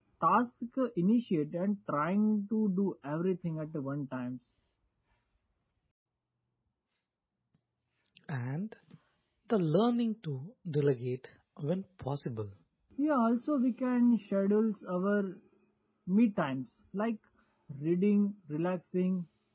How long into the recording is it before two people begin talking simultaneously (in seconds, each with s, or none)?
none